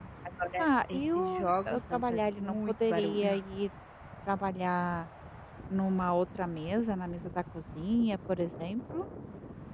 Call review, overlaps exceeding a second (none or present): present